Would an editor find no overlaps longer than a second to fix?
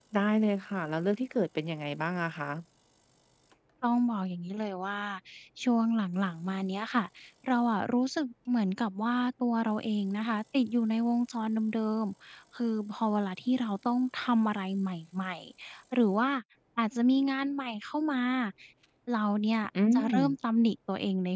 Yes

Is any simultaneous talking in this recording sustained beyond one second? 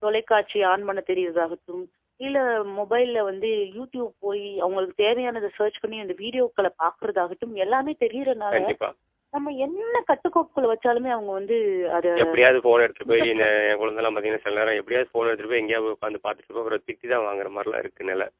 No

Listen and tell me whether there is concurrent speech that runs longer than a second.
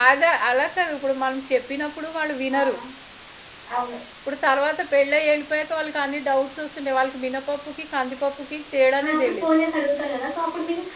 No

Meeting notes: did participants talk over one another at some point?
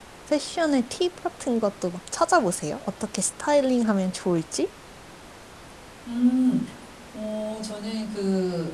No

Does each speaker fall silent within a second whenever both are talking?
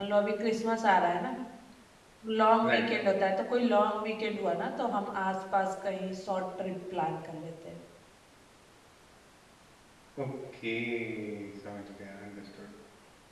Yes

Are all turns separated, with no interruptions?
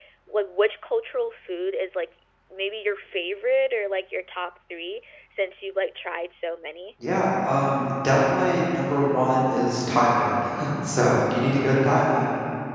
Yes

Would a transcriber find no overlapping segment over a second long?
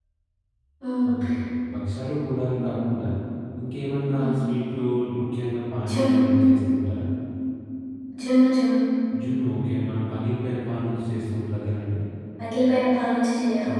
Yes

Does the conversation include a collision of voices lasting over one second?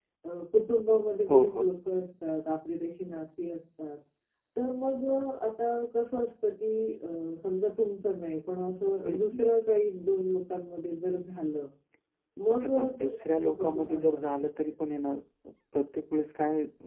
Yes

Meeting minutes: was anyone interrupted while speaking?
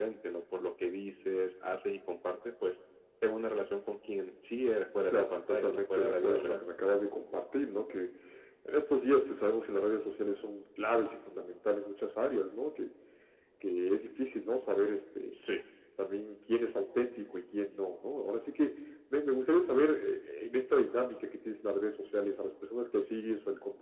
Yes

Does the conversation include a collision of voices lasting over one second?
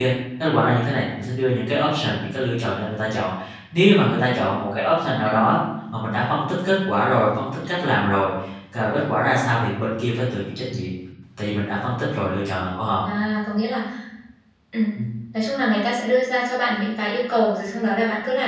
No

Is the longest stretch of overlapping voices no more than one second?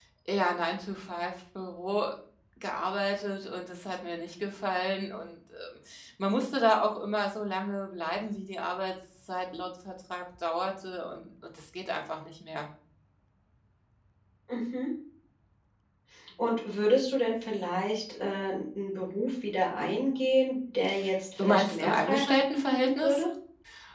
No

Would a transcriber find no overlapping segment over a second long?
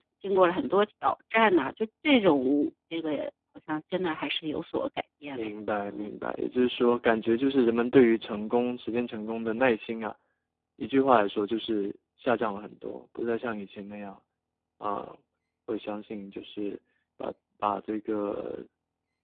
Yes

